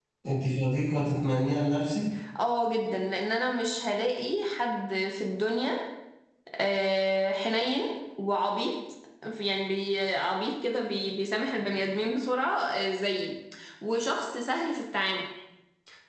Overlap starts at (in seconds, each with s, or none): none